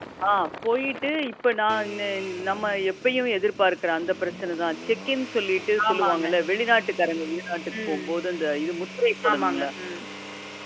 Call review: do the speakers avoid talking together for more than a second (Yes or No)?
Yes